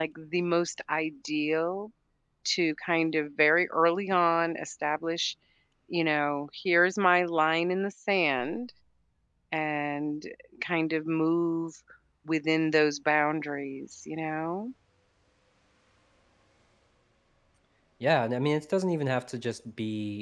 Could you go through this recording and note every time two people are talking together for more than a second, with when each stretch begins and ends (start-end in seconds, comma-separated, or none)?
none